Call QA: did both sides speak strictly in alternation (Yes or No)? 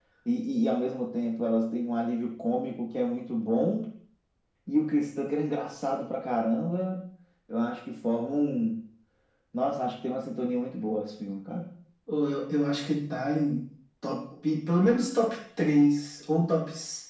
Yes